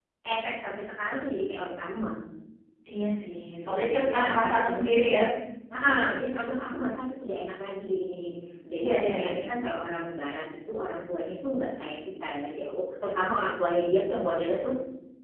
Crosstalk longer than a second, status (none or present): present